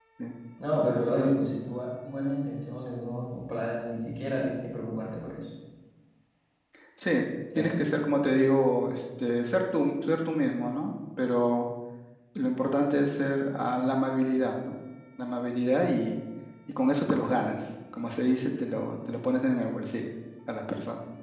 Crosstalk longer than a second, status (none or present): none